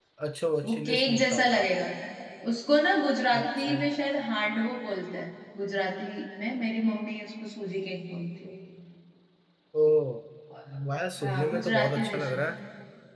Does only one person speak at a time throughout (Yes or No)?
No